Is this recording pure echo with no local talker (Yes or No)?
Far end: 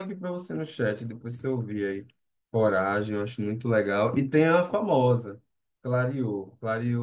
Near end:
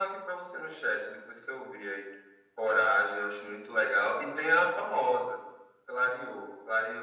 Yes